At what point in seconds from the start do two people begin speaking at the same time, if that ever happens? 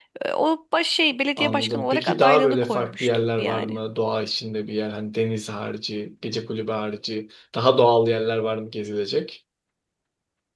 1.4 s

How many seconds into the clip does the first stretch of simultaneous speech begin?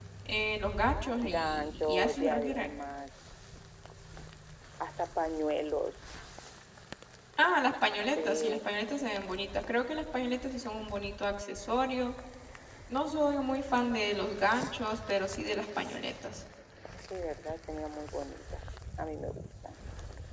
1.3 s

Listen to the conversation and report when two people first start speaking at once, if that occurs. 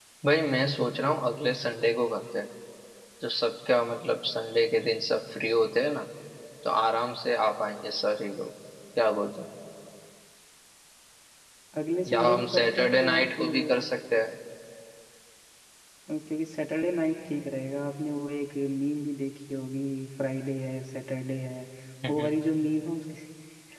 12.1 s

